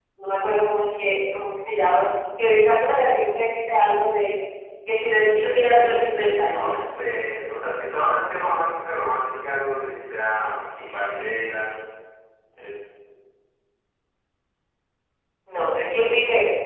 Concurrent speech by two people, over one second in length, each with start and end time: 5.0-6.8

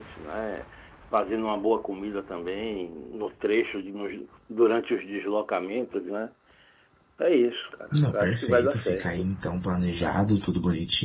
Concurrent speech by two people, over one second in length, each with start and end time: 7.9-9.3

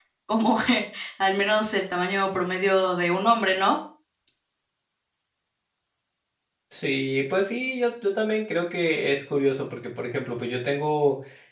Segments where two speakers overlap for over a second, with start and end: none

